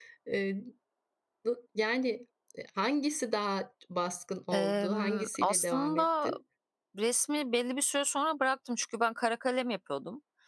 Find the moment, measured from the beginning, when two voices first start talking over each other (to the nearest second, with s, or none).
5 s